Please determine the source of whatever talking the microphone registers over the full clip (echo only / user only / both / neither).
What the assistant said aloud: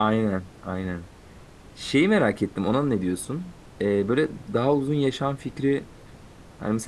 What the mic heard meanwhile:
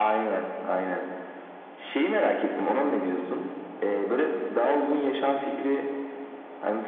echo only